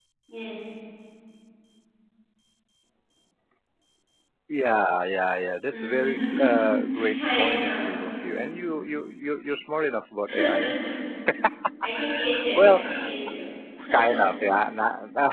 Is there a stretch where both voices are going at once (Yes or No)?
Yes